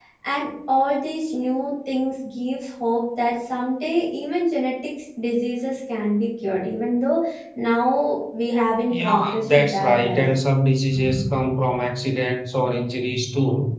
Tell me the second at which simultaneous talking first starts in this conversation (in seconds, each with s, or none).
8.9 s